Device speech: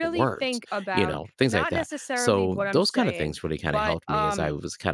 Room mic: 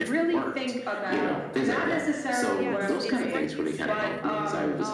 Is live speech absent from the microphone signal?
No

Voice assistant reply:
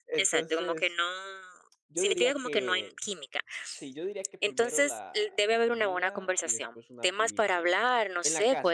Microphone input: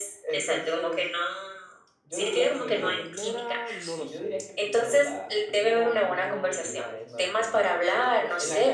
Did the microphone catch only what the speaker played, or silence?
No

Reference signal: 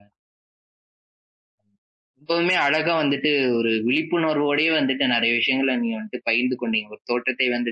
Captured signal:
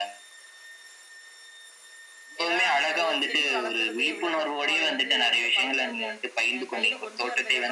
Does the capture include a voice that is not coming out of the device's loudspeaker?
Yes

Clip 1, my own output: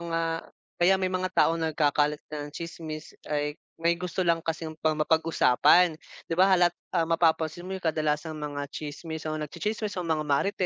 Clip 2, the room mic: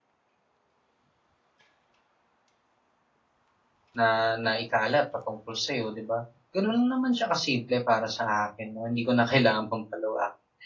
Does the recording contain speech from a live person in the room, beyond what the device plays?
Yes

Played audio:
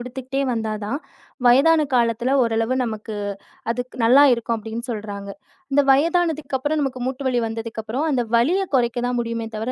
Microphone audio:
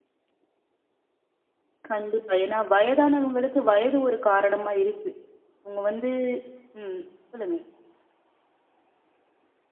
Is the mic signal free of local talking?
No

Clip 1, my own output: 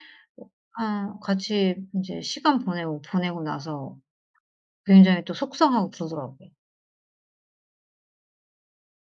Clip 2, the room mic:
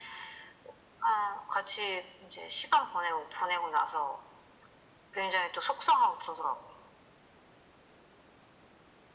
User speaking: No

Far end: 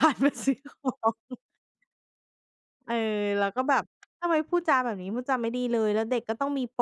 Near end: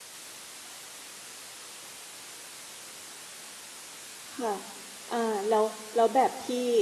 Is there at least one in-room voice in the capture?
Yes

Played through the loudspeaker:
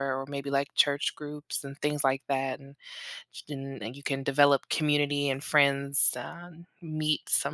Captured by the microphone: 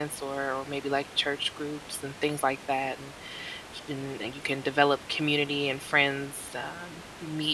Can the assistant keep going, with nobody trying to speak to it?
Yes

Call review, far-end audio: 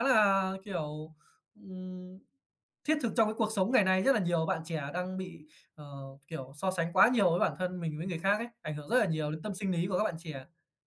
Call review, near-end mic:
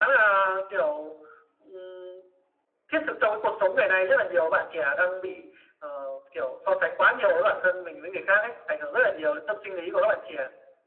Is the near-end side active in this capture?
No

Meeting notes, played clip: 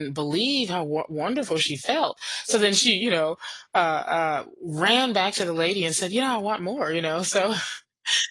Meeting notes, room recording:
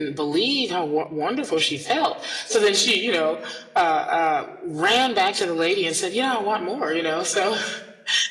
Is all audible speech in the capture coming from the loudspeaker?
Yes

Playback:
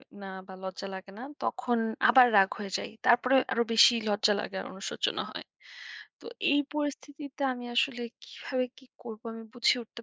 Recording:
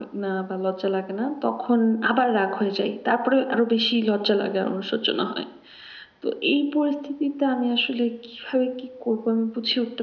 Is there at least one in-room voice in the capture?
No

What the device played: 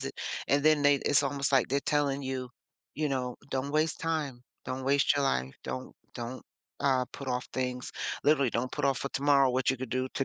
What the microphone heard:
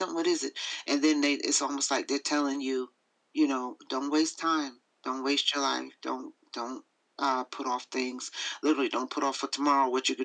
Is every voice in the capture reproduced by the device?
Yes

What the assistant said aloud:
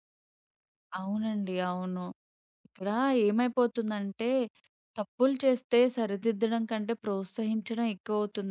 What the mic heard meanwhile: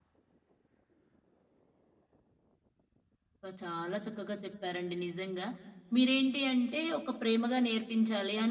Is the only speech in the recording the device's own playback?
No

